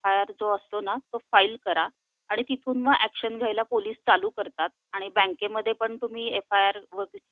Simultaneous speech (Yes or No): No